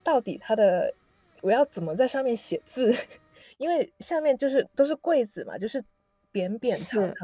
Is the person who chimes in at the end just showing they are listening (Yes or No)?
Yes